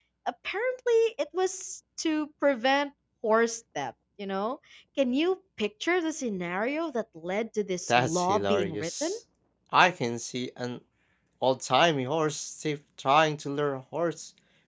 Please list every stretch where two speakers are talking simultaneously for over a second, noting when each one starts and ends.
7.9-9.1

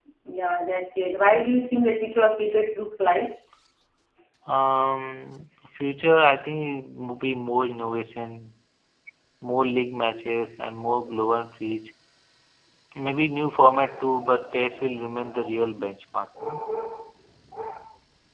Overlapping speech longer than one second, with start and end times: none

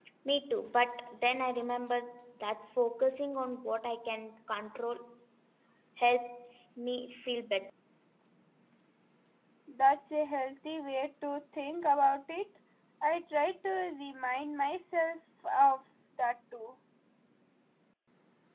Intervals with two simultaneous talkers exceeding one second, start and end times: none

